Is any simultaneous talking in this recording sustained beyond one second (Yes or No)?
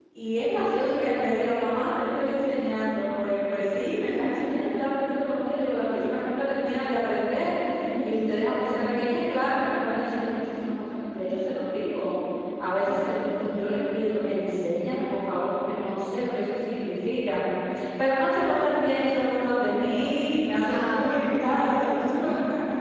Yes